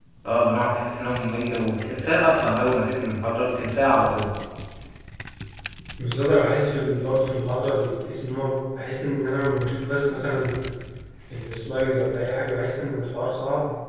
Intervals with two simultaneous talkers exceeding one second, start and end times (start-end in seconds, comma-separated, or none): none